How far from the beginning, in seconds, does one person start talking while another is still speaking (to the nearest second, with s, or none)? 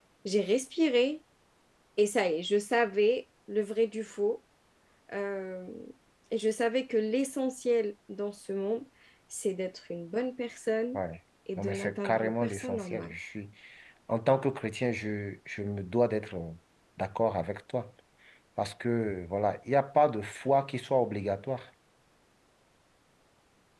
12 s